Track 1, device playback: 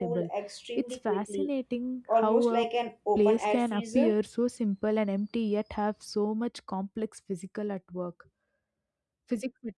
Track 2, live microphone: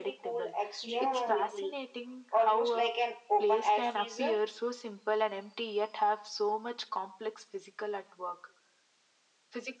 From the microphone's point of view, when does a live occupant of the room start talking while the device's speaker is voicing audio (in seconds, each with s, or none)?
0.8 s